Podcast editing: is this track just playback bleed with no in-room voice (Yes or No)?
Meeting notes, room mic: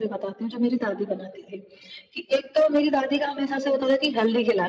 Yes